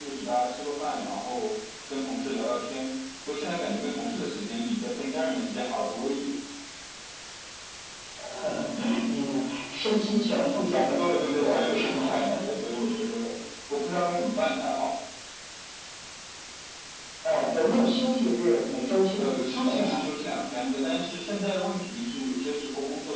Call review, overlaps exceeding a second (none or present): present